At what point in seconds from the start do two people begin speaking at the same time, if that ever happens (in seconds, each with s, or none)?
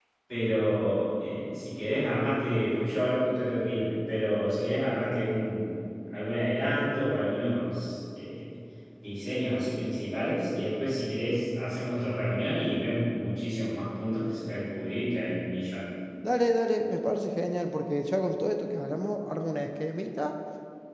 none